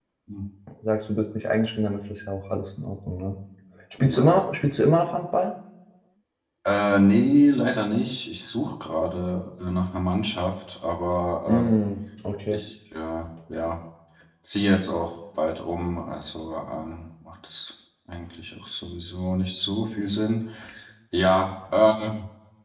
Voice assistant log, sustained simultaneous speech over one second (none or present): none